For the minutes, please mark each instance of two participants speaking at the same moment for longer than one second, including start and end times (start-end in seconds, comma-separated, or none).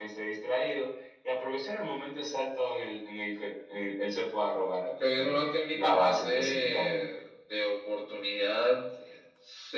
5.1-7.1